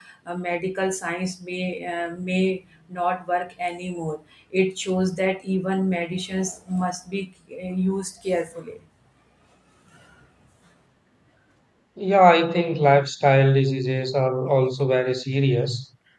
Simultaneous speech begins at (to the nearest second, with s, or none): none